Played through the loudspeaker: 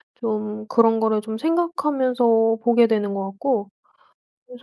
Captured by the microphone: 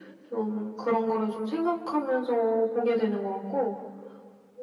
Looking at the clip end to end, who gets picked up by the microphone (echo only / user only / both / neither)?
echo only